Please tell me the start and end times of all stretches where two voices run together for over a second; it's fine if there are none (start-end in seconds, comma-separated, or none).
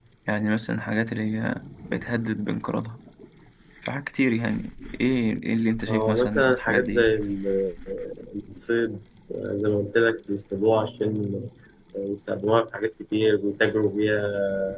5.9-7.1